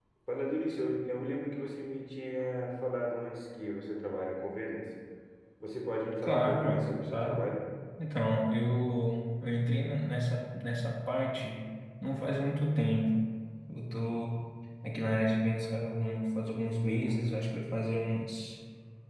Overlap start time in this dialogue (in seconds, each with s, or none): 6.2 s